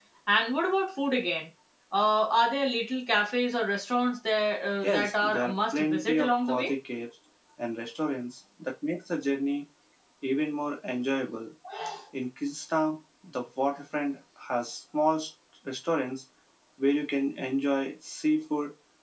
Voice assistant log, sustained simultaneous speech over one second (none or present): present